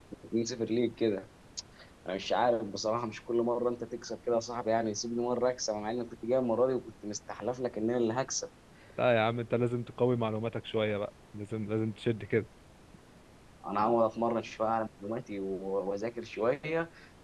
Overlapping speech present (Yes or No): No